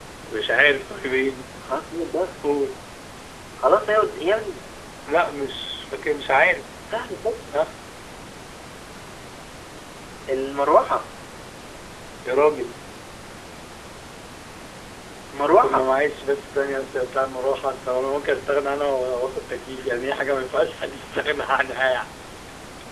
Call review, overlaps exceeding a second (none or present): none